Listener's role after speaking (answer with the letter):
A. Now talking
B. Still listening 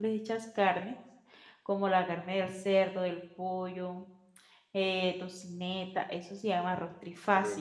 A